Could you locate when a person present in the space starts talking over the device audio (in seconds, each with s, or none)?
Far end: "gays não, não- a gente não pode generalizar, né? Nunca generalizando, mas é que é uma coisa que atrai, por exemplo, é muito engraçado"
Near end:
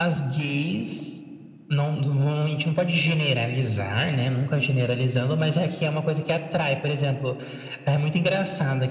none